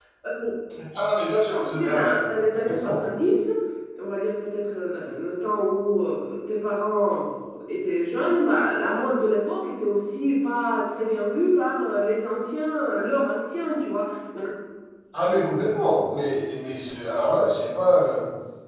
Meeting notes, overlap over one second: present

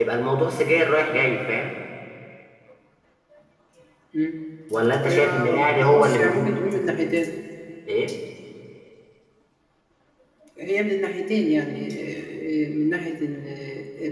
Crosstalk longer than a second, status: present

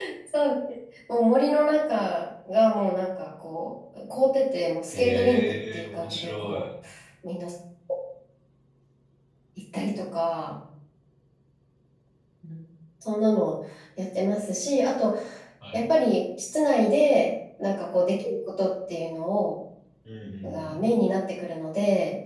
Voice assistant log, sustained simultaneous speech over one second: present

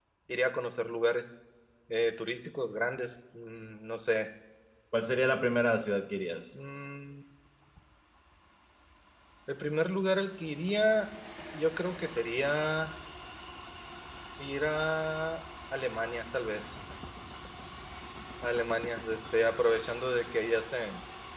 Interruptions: none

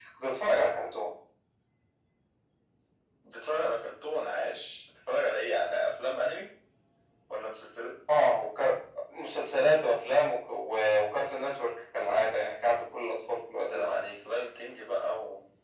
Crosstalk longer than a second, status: none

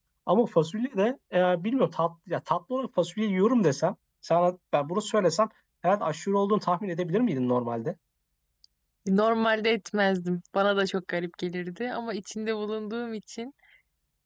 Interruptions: none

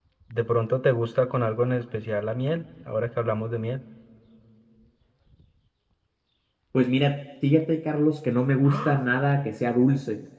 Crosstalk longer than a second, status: none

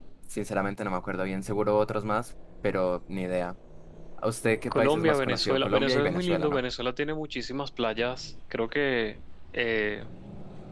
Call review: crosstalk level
present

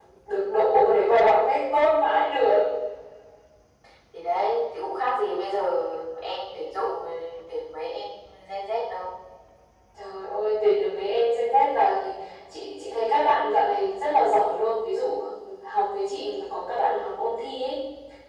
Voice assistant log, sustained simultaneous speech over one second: none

